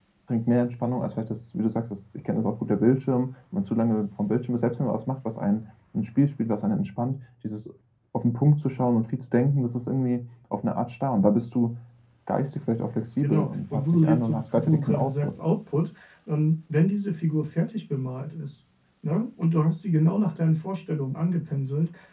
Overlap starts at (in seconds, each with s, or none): 13.2 s